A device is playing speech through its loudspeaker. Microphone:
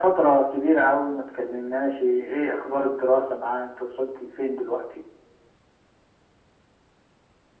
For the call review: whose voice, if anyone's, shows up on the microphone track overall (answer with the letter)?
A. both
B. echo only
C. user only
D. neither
B